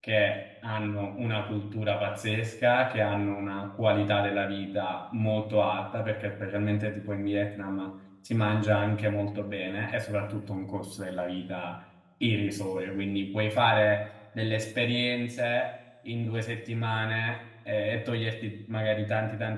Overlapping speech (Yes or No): No